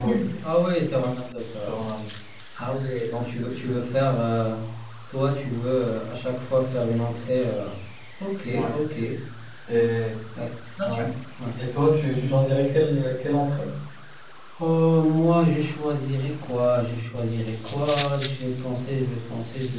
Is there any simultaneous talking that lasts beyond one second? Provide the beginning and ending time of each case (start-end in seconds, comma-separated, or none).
none